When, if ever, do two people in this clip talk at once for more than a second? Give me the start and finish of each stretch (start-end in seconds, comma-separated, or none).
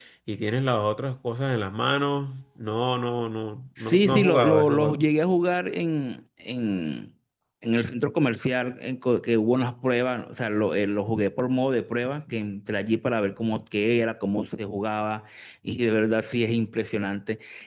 3.8-5.0